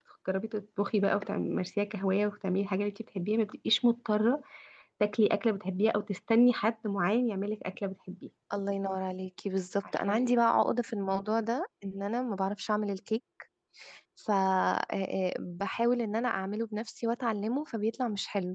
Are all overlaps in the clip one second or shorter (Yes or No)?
Yes